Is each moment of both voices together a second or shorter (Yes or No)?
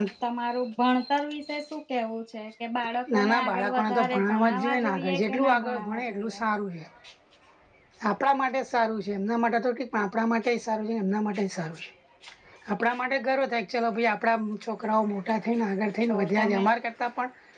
No